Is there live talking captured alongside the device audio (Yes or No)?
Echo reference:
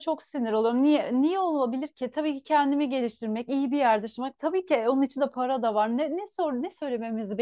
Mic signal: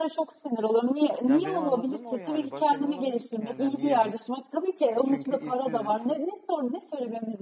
Yes